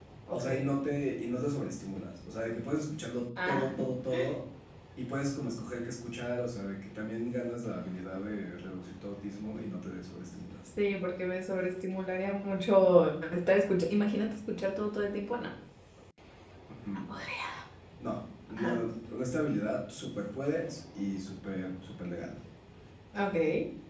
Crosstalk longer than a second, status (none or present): none